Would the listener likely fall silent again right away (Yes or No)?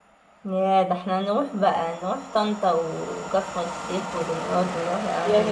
No